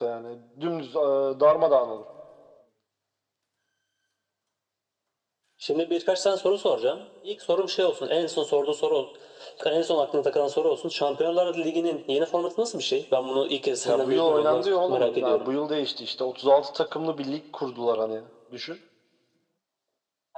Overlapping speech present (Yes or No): Yes